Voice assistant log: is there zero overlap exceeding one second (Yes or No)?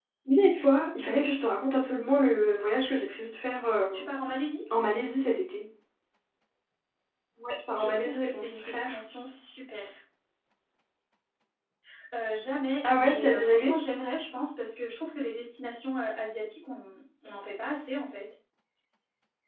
No